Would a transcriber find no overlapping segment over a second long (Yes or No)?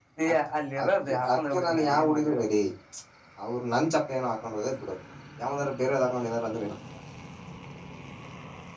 No